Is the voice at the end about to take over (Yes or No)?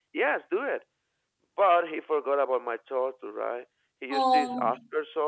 No